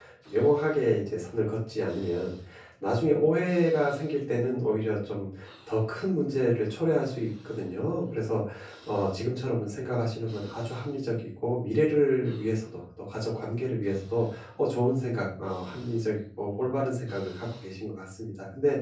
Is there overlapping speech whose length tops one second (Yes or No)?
No